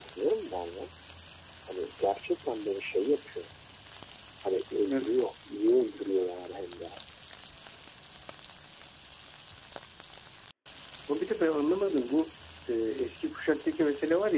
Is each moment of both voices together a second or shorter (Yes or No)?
Yes